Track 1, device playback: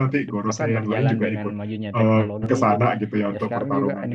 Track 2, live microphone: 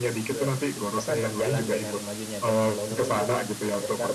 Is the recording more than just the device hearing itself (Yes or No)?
No